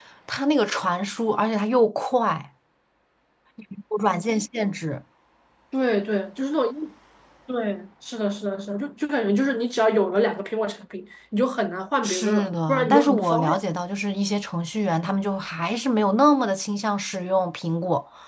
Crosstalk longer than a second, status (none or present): present